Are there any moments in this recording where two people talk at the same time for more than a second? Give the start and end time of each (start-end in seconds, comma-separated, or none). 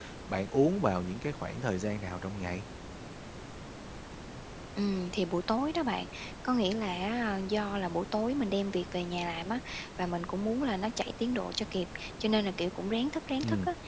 none